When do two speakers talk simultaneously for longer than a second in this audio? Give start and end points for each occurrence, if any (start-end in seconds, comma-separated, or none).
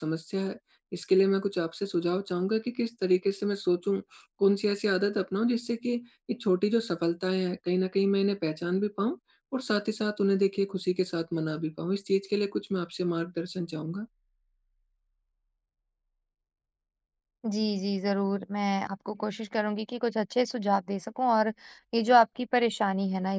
none